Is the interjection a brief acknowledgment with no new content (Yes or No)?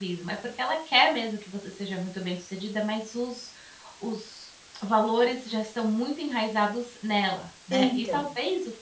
Yes